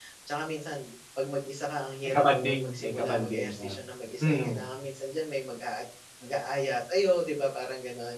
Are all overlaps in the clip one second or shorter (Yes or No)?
No